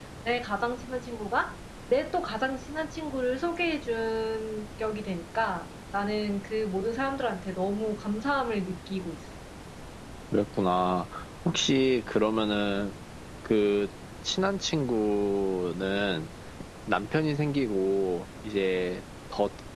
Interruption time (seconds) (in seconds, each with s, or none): none